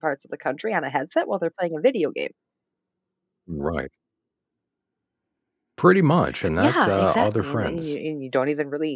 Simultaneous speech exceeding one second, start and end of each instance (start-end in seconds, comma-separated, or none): 6.6-7.9